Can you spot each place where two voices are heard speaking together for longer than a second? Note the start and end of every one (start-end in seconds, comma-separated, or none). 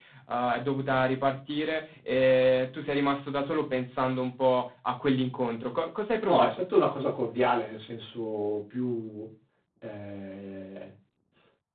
none